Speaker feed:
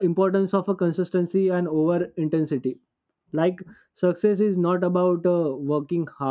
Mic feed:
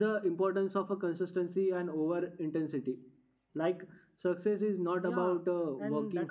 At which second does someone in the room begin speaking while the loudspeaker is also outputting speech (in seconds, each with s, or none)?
5.0 s